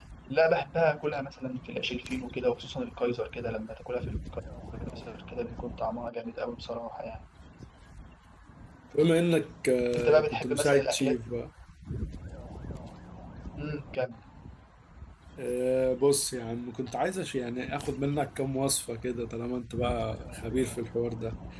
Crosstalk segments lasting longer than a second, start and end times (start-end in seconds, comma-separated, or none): 9.9-11.2